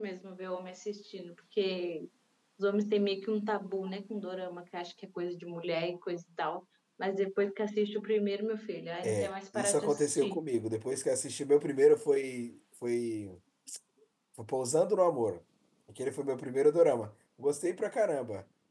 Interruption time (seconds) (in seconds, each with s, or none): 9.0 s